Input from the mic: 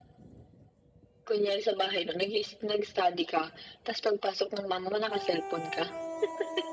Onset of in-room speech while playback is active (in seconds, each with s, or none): none